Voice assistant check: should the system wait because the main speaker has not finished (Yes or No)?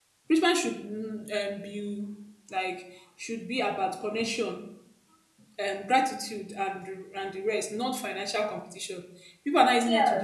No